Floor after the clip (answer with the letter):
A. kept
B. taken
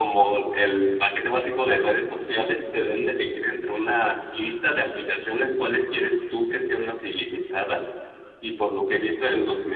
A